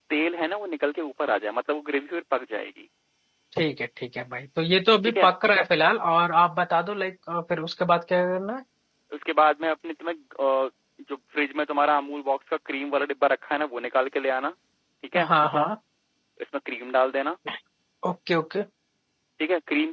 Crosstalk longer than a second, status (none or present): none